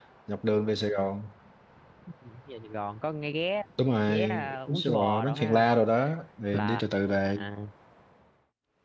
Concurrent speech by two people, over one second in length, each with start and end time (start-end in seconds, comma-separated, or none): 4.1-5.7